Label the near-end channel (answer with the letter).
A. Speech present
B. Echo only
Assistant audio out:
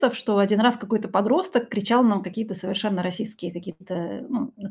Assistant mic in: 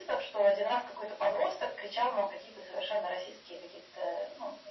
B